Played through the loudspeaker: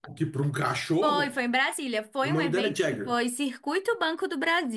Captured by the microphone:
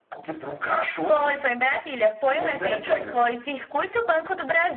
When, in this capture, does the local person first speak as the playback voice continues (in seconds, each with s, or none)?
none